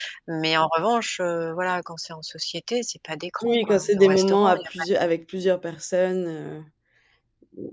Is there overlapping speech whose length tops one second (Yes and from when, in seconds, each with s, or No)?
Yes, from 3.4 s